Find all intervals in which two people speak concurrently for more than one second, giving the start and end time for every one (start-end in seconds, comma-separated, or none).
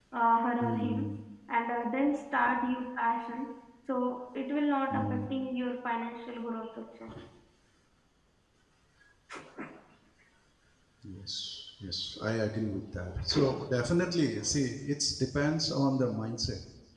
none